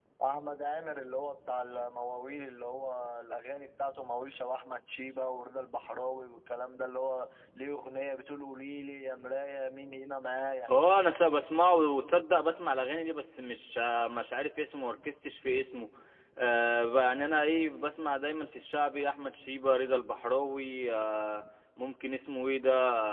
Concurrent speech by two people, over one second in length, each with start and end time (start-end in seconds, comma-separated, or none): none